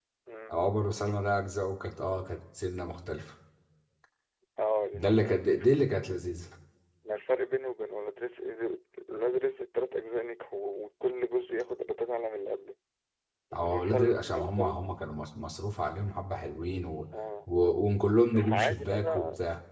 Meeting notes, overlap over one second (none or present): present